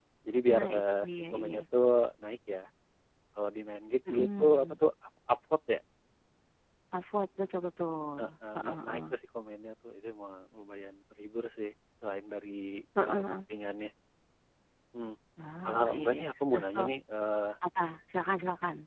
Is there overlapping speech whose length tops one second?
Yes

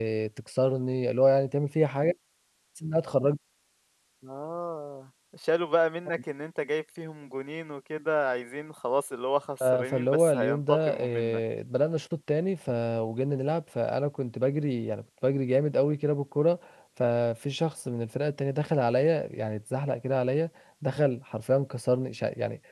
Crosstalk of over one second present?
Yes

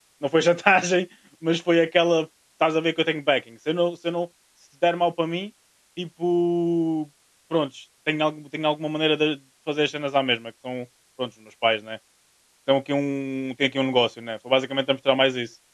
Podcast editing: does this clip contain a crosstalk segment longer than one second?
No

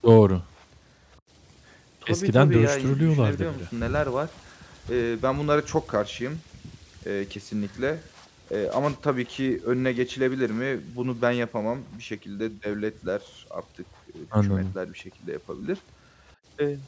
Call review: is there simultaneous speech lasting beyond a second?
Yes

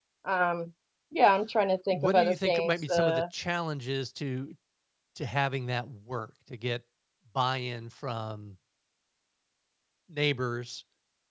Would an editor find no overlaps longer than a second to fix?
No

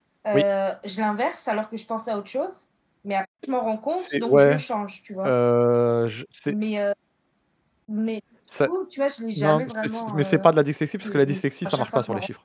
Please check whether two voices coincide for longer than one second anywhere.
Yes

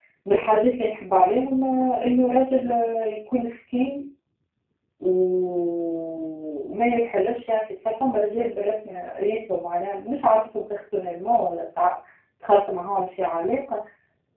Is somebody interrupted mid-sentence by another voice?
No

